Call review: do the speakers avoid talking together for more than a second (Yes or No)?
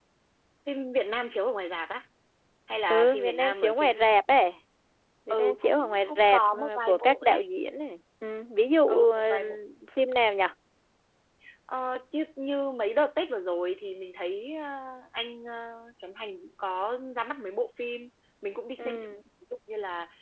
No